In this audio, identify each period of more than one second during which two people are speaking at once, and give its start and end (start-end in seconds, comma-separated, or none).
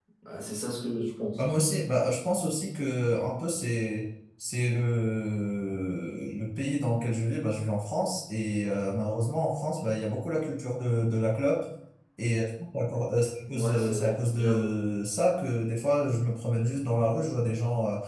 13.4-14.7